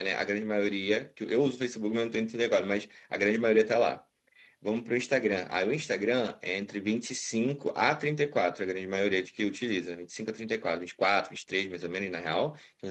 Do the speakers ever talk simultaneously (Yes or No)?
No